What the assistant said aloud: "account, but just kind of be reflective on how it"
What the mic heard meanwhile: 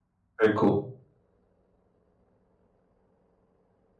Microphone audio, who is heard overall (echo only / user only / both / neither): user only